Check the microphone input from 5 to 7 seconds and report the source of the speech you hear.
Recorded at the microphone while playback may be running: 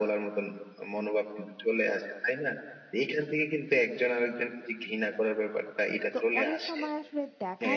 both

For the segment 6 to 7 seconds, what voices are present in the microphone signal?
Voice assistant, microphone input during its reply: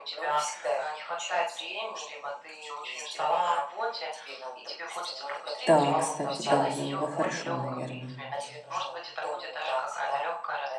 both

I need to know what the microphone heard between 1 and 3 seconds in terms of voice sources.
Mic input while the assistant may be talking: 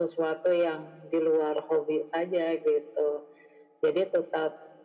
echo only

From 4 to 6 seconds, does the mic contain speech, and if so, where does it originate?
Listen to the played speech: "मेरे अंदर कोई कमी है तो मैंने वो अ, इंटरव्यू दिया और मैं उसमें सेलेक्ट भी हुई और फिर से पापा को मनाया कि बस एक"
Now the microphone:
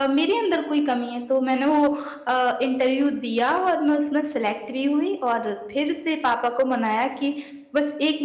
echo only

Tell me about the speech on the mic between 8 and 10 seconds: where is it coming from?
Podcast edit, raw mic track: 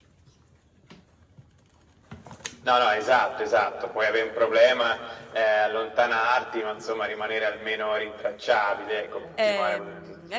both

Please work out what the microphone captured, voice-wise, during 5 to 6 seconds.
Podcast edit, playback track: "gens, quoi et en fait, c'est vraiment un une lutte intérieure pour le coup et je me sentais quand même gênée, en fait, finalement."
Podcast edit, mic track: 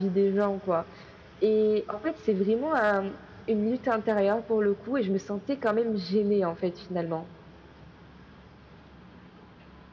echo only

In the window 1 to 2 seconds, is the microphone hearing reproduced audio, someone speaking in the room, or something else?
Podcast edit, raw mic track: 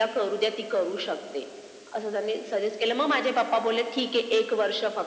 echo only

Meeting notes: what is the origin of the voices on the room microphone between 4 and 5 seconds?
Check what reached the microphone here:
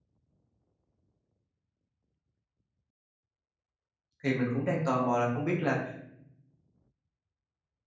user only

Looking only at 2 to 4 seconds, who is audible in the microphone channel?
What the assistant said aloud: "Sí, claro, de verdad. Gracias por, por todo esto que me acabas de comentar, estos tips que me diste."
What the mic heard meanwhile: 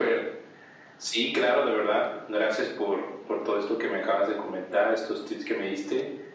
echo only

